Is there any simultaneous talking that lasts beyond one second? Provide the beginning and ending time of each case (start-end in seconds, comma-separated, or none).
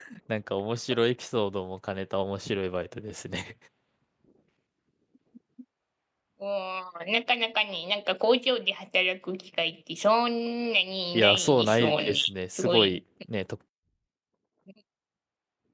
11.1-13.0